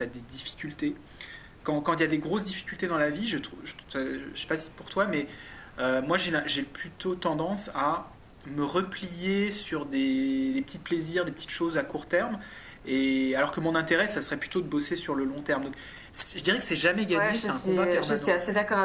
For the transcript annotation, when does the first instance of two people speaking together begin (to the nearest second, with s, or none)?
17 s